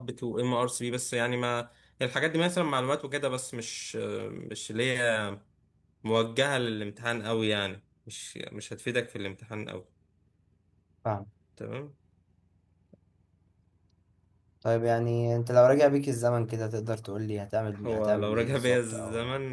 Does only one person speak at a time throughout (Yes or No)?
No